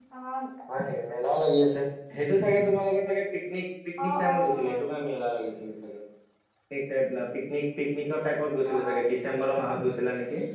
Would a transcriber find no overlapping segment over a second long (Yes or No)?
No